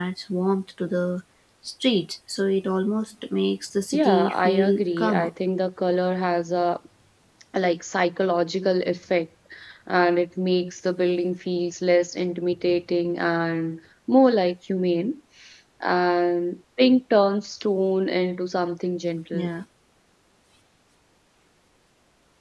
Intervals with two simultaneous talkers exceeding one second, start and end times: 3.9-5.3

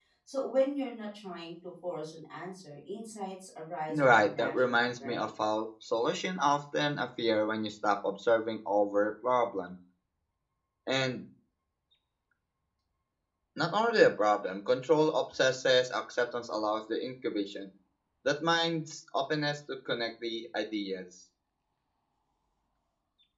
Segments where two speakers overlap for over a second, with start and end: 3.9-5.2

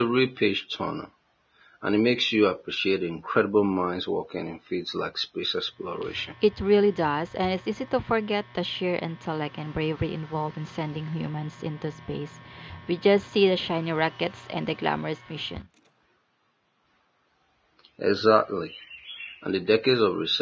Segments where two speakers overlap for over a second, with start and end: none

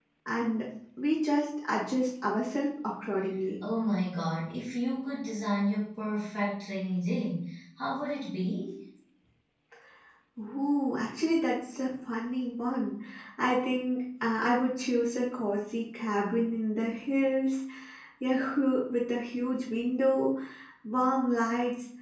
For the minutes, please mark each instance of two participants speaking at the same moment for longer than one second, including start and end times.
none

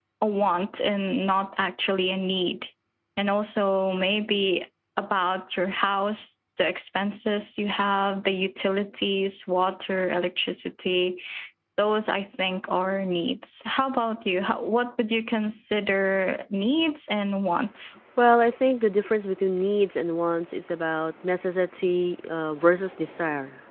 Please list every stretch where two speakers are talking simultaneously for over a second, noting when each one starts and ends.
none

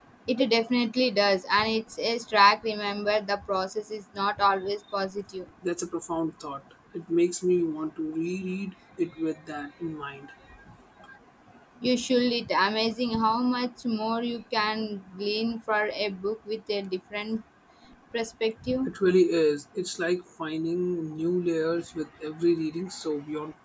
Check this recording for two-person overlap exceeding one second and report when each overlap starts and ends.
none

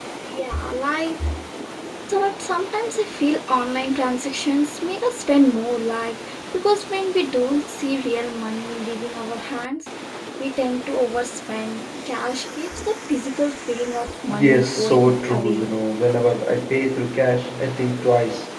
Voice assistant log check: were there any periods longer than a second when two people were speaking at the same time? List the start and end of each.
14.3-15.7

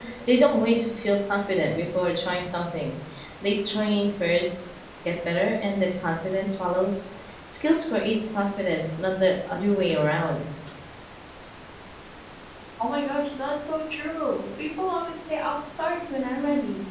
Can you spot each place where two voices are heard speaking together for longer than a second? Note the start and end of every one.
none

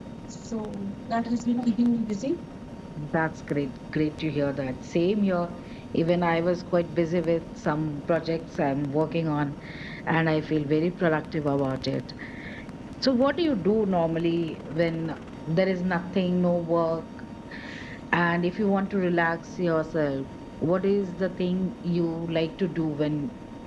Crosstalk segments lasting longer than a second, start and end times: none

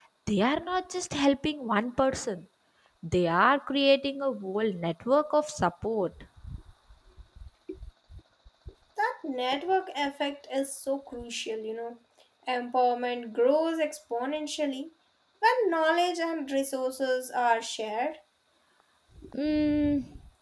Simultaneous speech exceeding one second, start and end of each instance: none

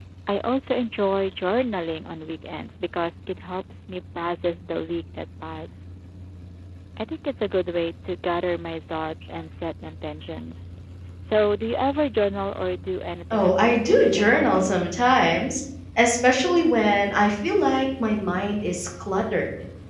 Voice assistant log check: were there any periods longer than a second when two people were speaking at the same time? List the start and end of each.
13.3-14.7

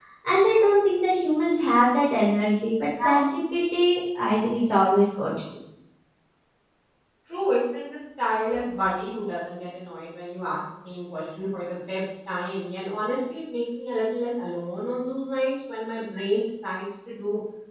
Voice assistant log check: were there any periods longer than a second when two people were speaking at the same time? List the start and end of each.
none

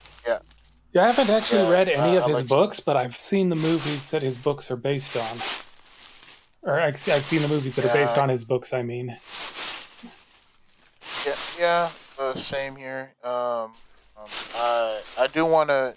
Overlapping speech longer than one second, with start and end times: 1.5-2.7

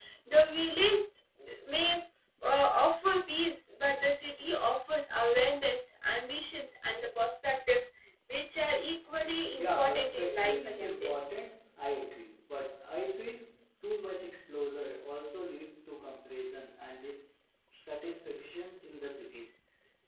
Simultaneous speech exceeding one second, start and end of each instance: 9.6-11.2

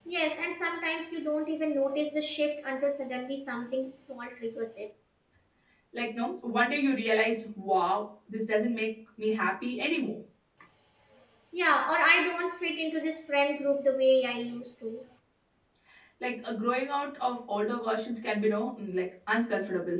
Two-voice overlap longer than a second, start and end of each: none

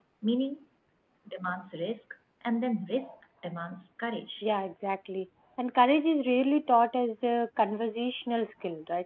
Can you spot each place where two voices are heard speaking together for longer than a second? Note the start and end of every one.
none

